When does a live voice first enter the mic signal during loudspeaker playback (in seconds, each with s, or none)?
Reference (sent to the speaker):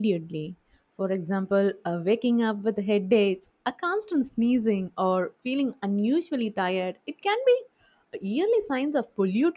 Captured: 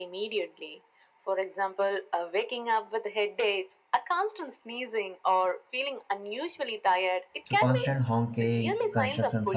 7.4 s